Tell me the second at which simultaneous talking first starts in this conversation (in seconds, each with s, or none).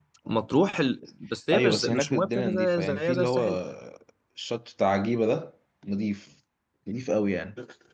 1.5 s